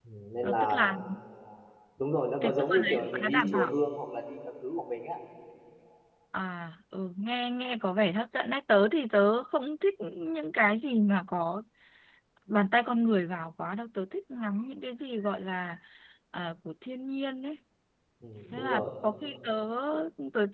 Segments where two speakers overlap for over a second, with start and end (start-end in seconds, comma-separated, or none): 2.4-3.7